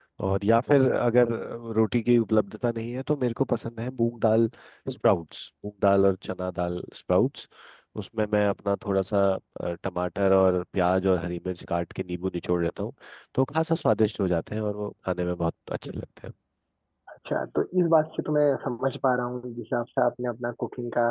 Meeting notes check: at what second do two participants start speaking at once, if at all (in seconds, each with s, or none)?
none